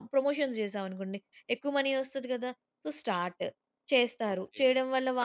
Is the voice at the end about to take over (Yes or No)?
Yes